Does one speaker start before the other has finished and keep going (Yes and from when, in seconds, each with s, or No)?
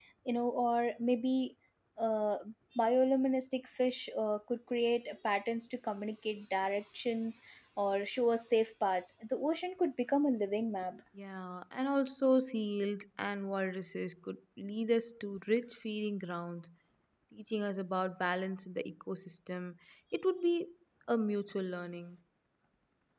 No